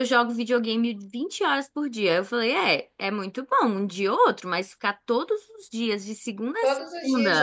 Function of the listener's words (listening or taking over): taking over